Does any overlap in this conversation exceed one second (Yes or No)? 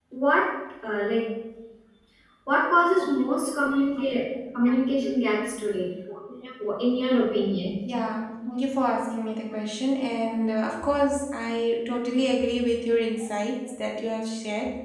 No